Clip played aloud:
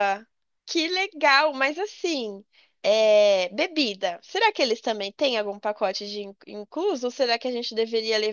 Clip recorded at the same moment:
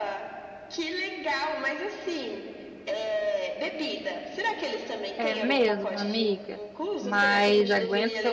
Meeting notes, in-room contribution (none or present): present